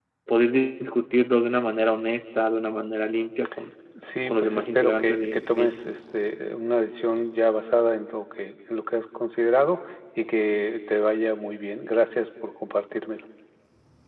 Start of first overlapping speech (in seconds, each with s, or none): 4.3 s